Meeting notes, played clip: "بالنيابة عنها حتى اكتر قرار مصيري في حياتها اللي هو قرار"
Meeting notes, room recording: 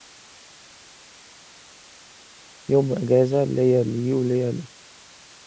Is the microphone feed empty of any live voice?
No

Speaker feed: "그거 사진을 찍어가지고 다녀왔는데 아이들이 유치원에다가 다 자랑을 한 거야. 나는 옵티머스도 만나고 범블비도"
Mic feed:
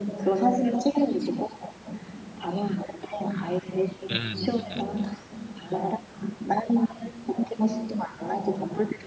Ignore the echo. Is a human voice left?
Yes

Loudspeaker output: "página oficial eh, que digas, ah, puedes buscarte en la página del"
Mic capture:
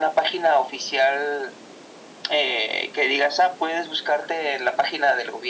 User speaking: No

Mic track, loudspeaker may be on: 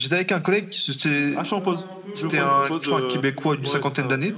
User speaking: Yes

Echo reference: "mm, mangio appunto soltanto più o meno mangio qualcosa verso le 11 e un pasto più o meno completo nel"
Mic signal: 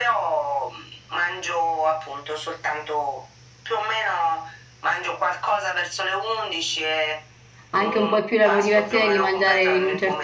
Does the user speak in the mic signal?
Yes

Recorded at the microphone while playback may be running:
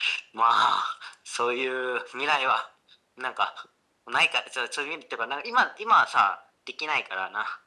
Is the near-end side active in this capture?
No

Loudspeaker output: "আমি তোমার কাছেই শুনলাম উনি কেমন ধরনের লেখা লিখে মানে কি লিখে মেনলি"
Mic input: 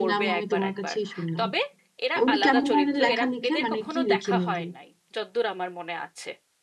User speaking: Yes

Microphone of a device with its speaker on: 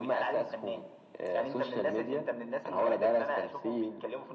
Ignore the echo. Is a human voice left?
No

